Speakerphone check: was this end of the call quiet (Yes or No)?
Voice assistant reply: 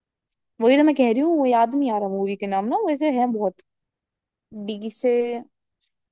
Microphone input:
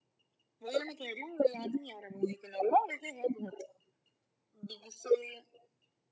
Yes